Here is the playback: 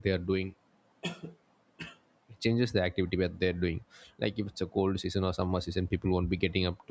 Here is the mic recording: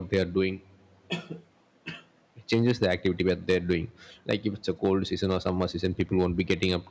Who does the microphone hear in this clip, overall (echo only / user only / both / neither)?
echo only